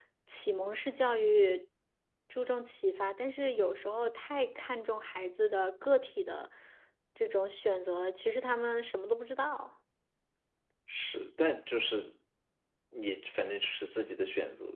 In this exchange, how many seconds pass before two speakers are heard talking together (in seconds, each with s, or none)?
none